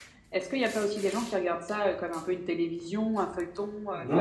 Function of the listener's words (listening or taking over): taking over